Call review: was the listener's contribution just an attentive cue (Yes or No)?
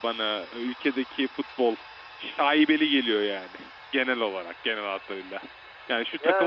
Yes